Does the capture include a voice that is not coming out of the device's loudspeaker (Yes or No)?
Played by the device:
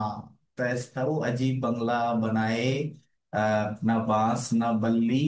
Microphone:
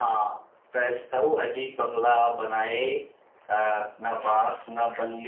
No